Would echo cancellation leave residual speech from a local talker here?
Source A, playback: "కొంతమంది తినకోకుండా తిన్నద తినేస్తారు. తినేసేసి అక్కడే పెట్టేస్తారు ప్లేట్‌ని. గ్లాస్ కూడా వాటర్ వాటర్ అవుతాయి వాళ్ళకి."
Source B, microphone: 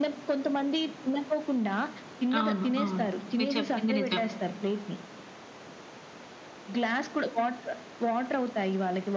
Yes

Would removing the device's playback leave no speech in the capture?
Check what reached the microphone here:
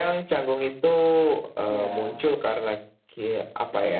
No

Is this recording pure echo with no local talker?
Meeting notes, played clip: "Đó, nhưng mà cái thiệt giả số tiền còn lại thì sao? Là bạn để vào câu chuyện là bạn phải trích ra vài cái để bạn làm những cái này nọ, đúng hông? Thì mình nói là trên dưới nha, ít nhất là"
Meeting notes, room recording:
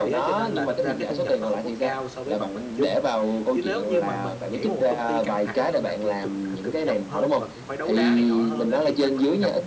No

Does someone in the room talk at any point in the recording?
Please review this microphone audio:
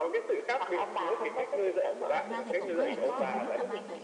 Yes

